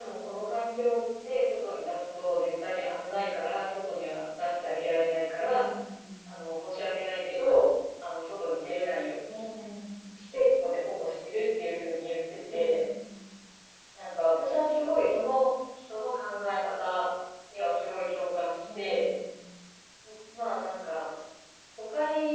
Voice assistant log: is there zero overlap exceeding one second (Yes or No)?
Yes